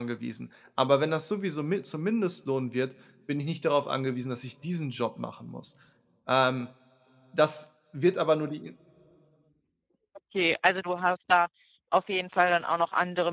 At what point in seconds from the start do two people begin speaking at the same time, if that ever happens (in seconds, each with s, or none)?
none